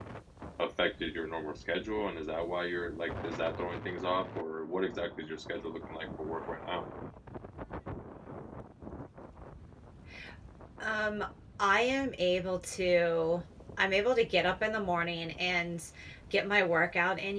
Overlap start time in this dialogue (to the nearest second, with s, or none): none